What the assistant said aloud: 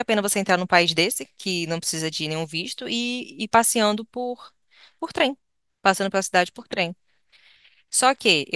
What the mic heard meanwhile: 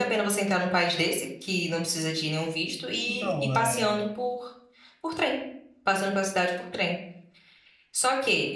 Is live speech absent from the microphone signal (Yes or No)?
No